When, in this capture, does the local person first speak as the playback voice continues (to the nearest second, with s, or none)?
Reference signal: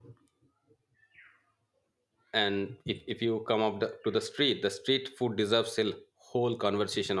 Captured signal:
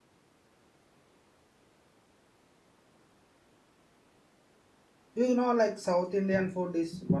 5 s